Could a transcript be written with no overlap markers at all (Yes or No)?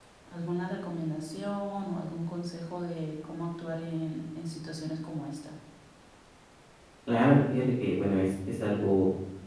Yes